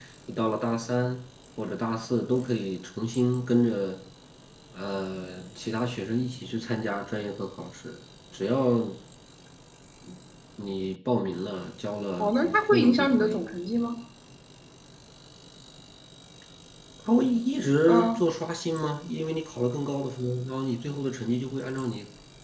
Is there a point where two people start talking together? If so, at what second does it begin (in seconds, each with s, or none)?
12.2 s